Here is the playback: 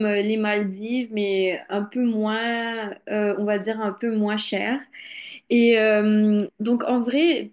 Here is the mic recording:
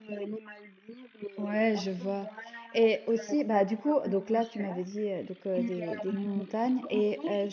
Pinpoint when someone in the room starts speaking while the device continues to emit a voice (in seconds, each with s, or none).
1.4 s